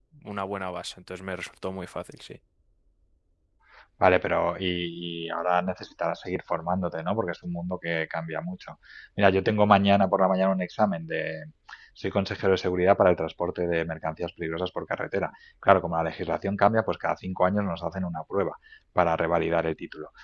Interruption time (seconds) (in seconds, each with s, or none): none